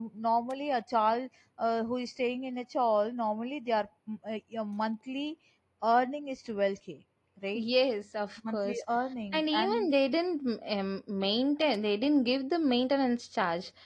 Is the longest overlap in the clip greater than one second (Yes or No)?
No